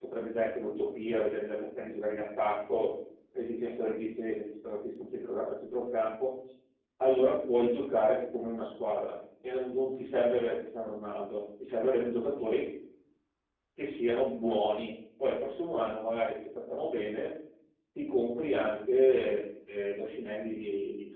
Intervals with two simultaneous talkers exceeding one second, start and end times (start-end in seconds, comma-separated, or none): none